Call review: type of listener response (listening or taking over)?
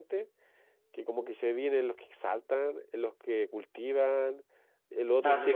taking over